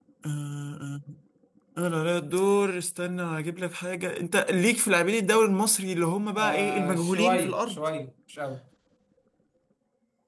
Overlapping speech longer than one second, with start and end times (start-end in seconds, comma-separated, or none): 6.4-7.8